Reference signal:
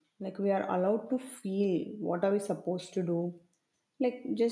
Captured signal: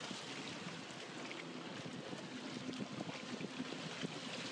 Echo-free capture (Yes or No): Yes